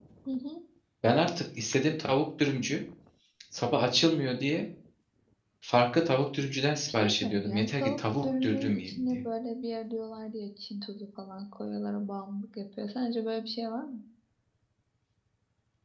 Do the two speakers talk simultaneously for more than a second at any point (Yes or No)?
Yes